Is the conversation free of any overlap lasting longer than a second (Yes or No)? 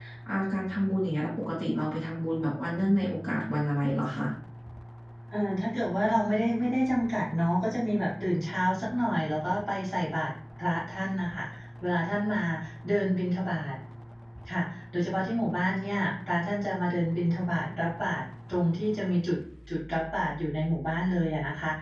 Yes